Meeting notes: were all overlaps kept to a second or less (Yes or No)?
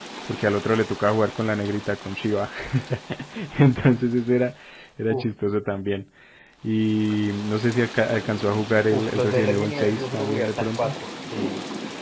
No